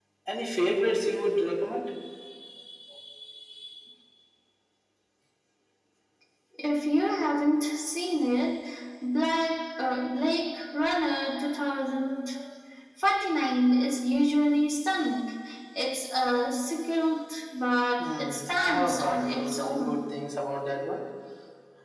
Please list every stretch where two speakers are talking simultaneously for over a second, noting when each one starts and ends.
18.0-20.0

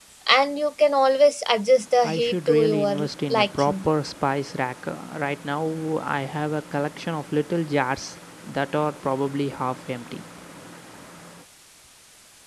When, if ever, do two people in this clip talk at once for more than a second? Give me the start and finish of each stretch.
2.0-3.9

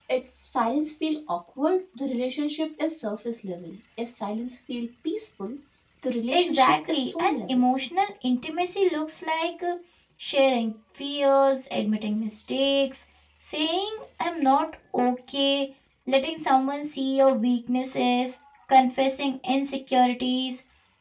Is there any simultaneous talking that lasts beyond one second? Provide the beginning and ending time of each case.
6.3-7.6

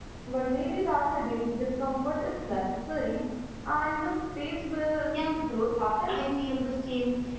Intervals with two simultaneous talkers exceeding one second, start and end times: none

